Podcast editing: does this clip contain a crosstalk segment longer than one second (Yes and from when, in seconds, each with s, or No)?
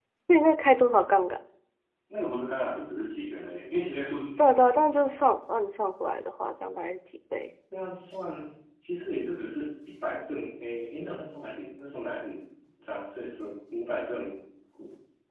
No